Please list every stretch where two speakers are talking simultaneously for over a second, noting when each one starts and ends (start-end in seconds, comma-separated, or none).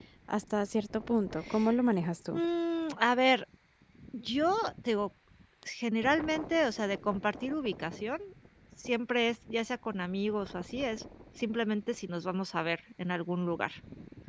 none